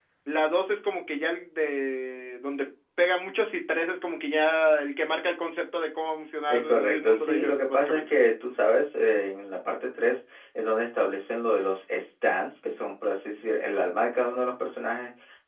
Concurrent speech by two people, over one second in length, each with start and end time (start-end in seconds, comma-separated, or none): 6.5-8.1